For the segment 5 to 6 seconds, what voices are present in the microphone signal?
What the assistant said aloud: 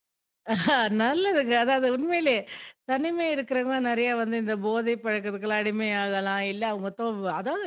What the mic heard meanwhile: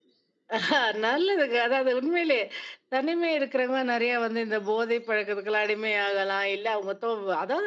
echo only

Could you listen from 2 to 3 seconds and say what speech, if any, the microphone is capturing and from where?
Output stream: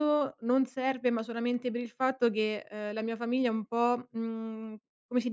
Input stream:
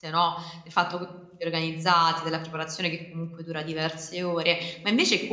user only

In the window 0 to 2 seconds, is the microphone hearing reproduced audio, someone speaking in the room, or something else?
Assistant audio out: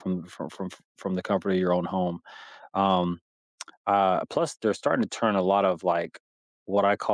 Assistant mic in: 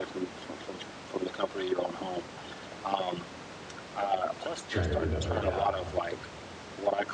echo only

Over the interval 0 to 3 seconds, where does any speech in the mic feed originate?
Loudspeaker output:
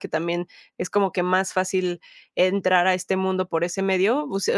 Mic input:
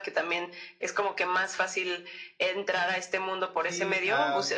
echo only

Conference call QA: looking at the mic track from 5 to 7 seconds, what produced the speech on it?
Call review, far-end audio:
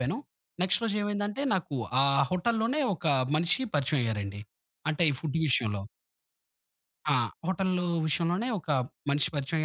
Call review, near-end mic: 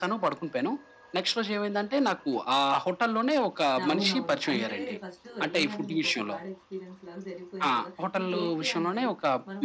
both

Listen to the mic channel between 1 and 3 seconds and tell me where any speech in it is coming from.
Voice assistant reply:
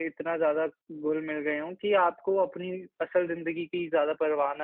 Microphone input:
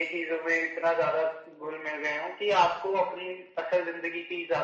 echo only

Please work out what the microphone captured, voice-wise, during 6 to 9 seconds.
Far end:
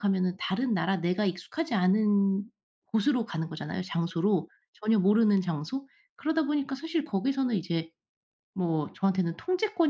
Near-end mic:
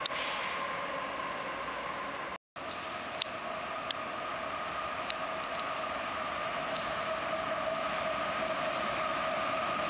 neither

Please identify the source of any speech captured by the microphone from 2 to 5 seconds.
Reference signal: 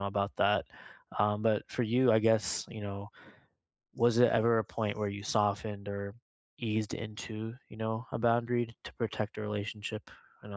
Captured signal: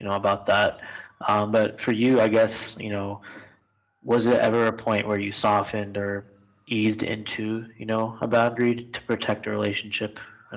echo only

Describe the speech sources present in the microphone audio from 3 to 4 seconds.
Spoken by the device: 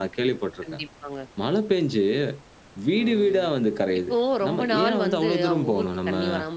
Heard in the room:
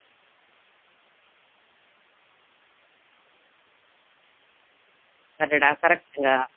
neither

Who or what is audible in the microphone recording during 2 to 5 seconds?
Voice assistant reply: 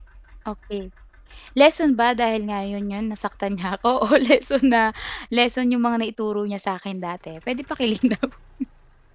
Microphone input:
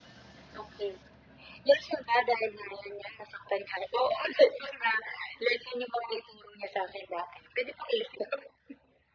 echo only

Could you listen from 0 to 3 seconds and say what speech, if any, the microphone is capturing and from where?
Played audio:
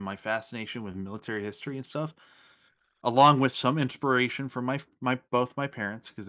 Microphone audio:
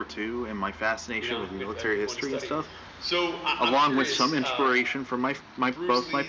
both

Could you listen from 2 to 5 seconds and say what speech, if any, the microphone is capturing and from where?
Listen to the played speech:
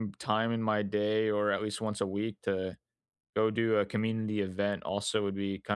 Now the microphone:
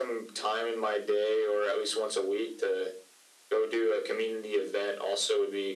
echo only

